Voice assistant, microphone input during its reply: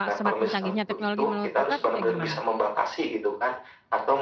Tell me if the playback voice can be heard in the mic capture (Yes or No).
Yes